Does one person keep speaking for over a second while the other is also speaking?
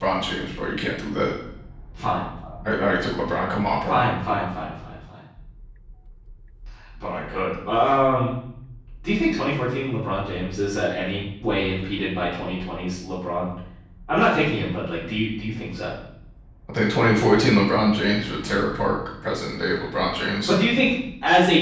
No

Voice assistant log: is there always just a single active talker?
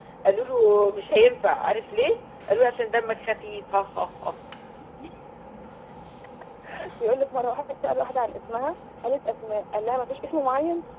Yes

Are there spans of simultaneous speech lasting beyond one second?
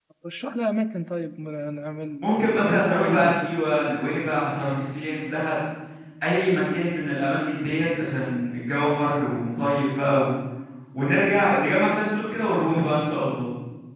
Yes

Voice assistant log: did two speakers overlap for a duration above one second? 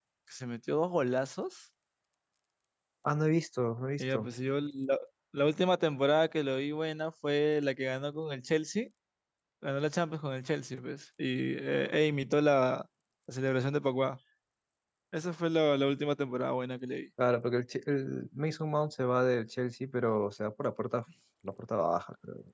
No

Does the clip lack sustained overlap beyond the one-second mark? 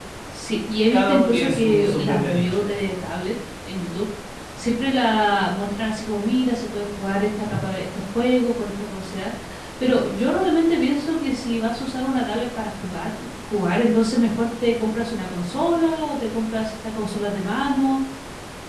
No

